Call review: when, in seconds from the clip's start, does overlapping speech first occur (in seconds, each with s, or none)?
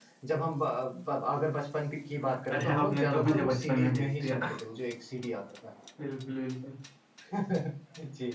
2.3 s